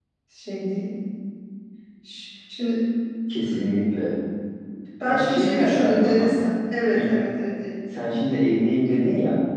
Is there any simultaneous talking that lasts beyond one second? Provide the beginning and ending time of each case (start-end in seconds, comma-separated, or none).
5.0-6.3